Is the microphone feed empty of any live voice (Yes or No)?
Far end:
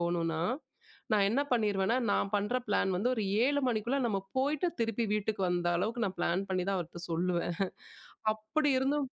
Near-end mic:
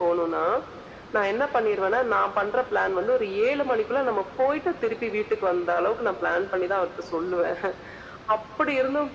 Yes